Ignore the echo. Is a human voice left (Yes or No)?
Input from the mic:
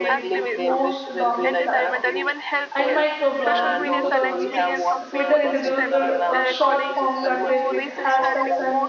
Yes